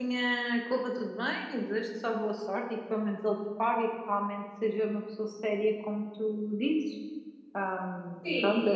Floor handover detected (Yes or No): Yes